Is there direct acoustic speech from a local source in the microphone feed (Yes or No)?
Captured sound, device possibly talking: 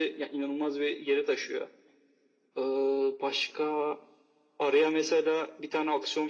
No